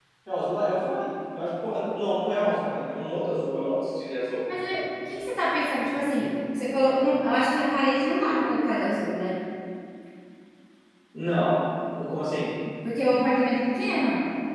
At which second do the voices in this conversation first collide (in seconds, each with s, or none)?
none